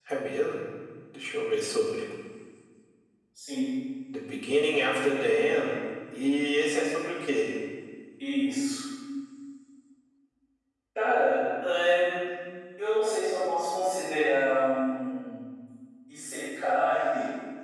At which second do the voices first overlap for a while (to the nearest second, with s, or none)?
none